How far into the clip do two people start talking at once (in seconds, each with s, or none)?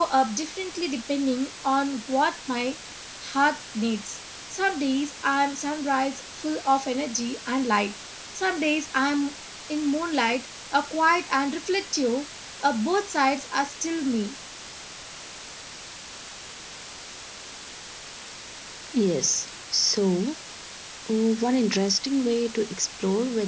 none